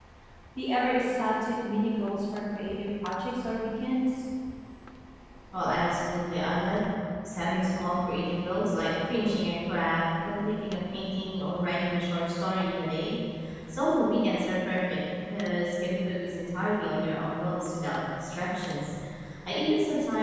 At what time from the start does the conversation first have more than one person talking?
none

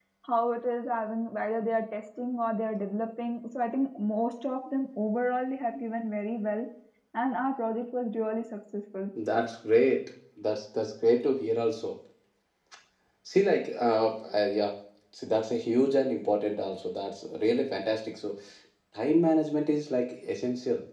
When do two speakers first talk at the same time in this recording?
none

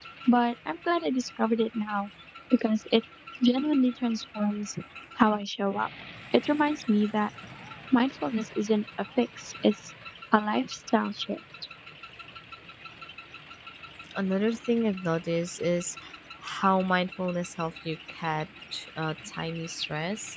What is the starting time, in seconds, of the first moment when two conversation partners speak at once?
none

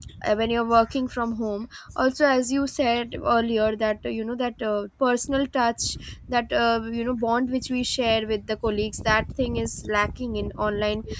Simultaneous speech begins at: none

